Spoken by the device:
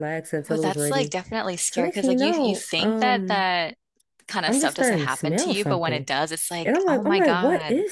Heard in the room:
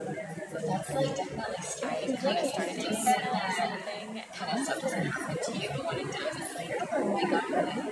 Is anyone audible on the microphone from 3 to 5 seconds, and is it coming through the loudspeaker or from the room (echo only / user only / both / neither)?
both